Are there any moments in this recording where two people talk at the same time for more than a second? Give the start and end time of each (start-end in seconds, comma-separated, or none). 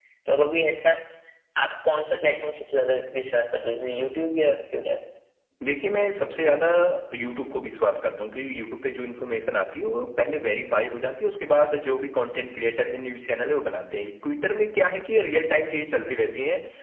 none